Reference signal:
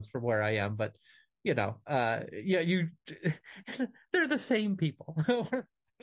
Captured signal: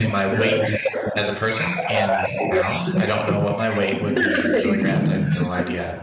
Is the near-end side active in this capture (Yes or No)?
Yes